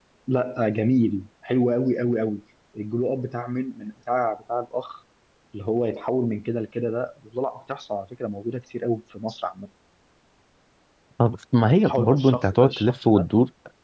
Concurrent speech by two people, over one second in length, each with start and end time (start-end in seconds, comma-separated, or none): 11.8-13.3